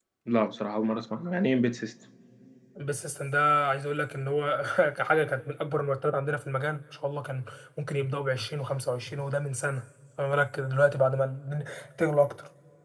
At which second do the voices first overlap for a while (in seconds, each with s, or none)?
none